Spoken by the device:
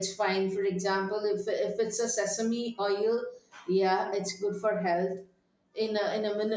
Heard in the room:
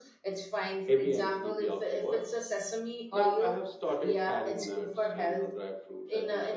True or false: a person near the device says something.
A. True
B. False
A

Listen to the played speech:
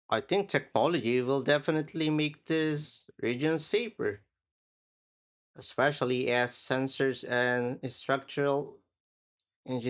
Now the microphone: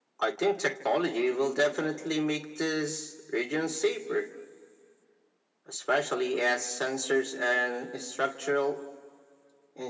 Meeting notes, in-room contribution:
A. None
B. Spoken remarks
A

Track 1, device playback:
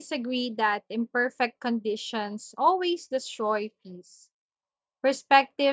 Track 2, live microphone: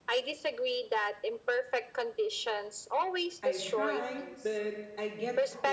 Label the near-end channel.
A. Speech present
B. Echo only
A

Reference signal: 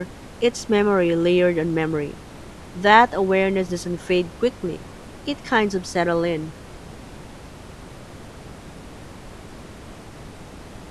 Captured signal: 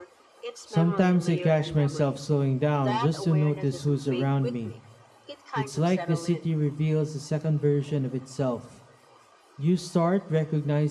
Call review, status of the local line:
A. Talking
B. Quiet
A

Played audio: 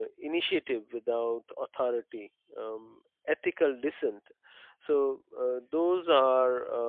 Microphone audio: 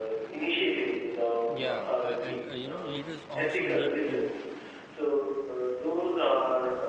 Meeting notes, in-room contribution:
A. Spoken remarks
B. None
A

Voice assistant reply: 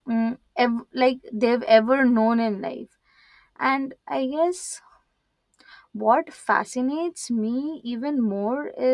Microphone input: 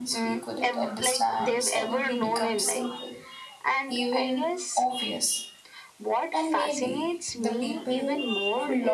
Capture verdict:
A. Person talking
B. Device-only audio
A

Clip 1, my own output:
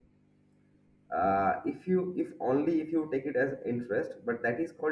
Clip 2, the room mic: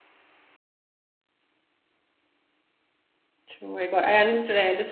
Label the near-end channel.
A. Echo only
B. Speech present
B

